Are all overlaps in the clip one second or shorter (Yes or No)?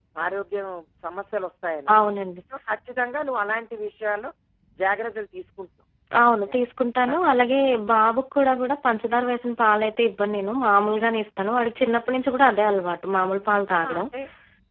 Yes